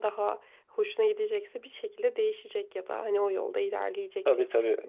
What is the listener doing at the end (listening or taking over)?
taking over